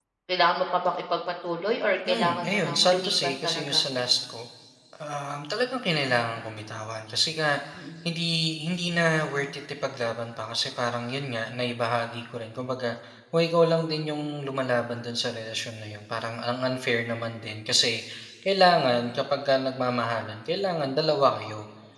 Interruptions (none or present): present